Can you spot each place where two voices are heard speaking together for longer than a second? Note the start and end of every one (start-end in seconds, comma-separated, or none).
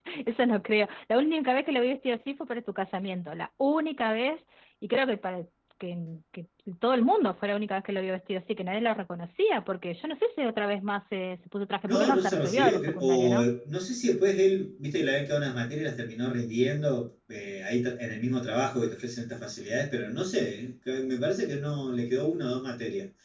11.8-13.5